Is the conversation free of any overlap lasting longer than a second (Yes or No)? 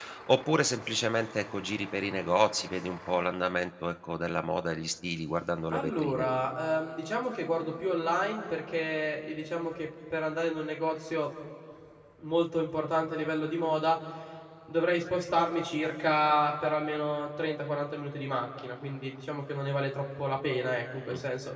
Yes